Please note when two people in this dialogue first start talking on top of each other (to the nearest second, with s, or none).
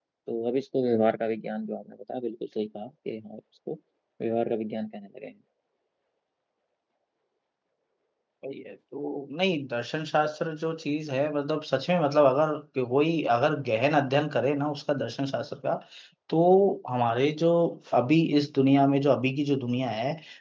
none